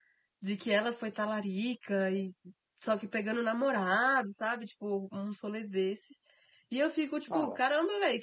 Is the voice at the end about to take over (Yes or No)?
No